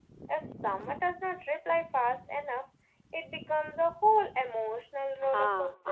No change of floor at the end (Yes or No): No